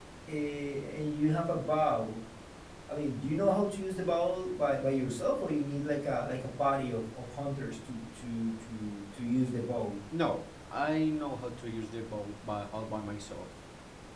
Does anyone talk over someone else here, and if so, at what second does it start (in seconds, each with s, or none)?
none